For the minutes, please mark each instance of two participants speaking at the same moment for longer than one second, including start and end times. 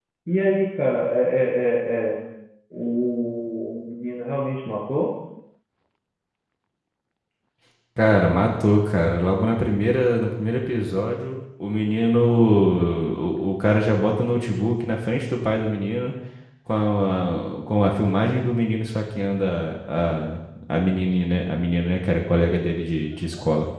none

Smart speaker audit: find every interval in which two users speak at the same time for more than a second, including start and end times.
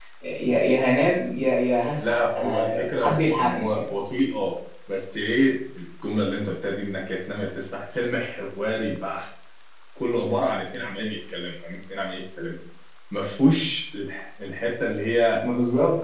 2.0-3.8

